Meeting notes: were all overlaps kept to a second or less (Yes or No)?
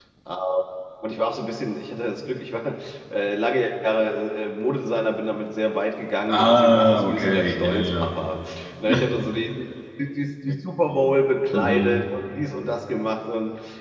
No